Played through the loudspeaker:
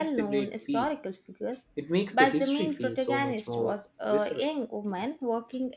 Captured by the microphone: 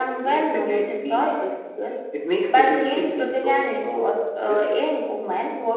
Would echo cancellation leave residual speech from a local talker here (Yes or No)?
No